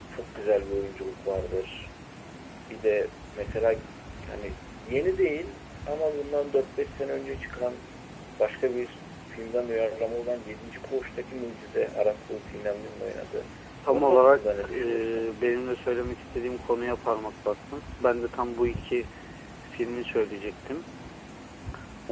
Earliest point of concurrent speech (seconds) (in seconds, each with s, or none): 13.9 s